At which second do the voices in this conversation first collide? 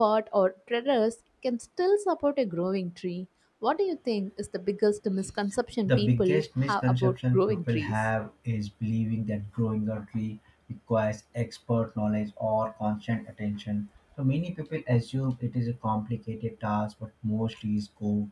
5.9 s

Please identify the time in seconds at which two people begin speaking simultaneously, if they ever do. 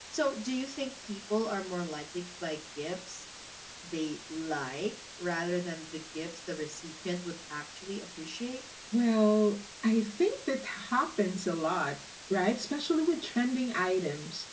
none

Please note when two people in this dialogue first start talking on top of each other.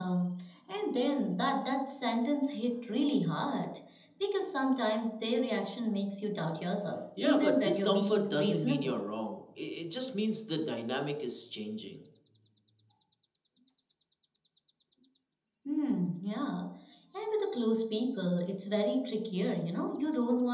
7.2 s

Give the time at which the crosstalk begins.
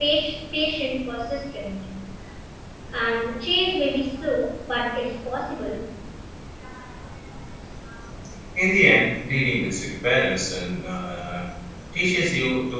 none

